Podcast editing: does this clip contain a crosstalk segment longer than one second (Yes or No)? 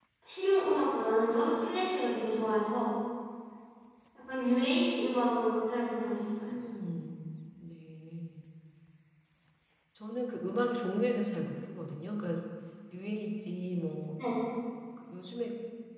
No